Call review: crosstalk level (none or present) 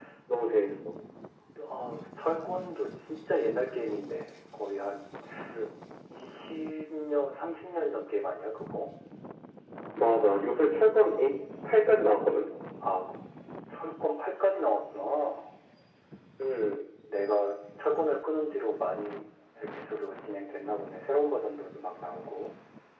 none